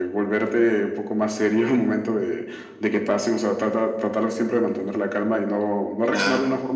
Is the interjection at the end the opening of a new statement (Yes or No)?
No